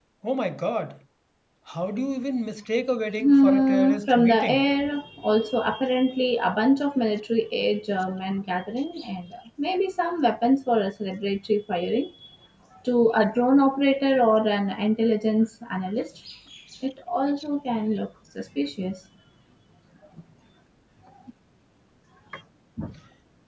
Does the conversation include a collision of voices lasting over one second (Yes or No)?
Yes